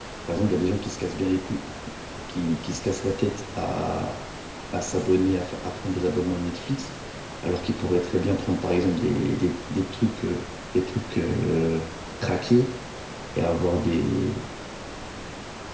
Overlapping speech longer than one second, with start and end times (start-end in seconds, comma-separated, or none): none